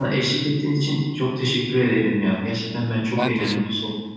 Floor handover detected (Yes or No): No